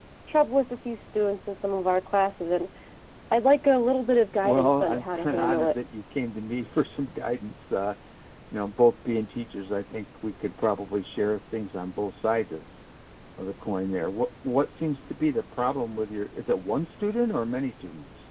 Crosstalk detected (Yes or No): Yes